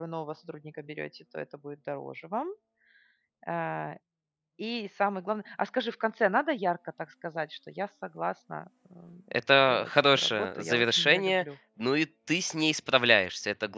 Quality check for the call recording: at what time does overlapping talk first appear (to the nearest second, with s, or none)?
10 s